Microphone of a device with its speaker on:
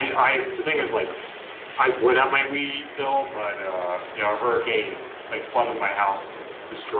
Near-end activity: none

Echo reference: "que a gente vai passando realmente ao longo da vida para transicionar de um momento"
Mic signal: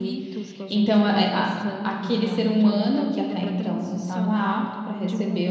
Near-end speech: present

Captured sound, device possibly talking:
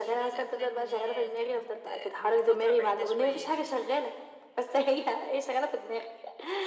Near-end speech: present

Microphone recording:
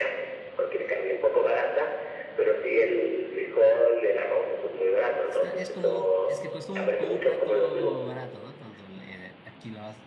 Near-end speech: present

